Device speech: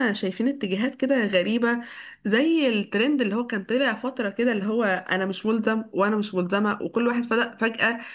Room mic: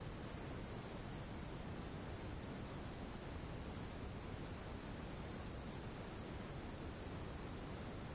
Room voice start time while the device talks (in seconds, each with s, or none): none